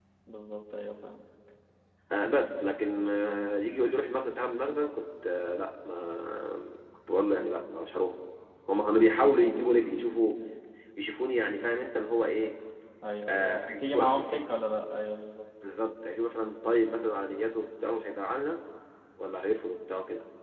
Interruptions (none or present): present